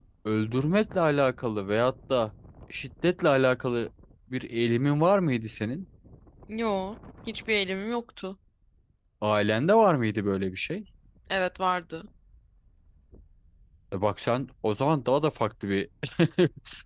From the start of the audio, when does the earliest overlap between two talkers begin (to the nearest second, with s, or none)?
none